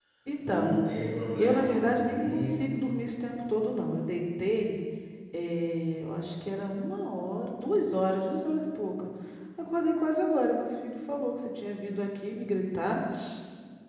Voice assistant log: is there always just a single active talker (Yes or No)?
No